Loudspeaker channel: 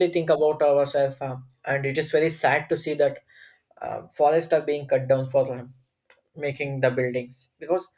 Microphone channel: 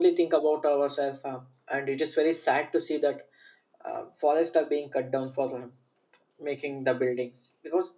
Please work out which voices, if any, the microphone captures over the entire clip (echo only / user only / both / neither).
echo only